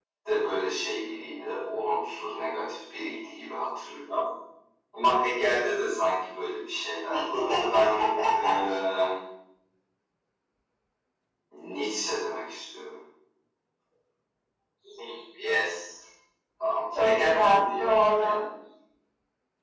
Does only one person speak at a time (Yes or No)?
No